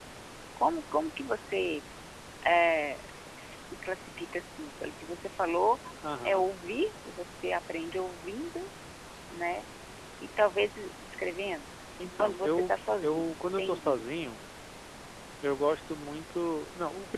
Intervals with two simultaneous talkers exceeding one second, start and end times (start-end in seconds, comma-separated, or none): 12.2-14.0